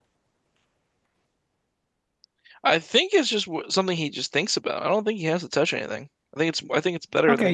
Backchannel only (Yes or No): No